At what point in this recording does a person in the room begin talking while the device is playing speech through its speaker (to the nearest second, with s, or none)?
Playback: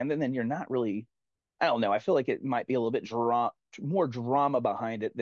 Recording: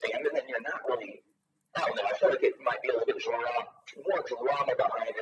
none